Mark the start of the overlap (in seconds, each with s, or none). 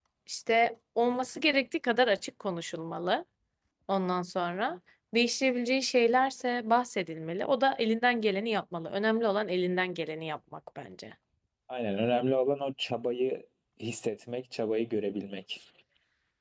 none